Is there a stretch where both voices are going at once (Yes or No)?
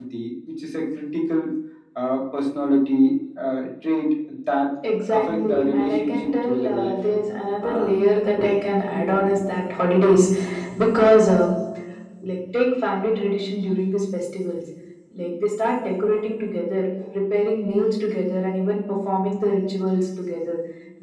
Yes